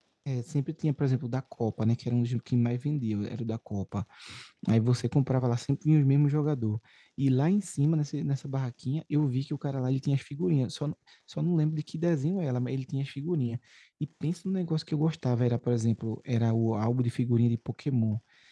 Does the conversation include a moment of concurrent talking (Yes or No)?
No